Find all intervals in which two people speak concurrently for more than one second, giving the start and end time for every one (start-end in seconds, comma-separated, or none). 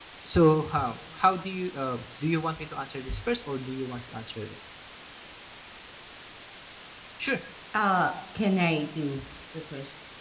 none